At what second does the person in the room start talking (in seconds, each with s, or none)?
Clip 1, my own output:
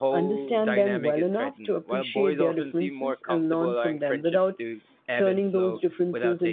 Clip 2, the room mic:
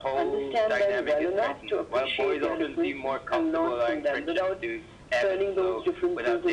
none